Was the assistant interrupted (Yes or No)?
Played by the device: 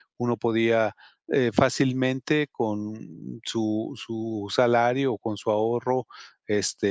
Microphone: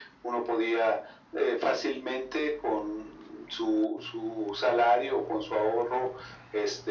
No